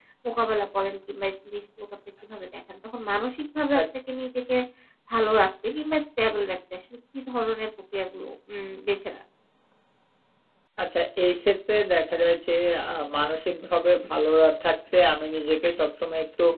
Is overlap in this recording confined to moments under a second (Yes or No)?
Yes